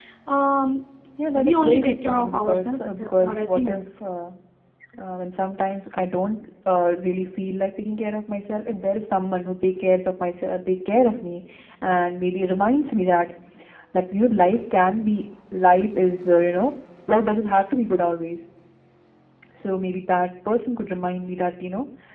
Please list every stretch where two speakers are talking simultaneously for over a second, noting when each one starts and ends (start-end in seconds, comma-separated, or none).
1.4-3.8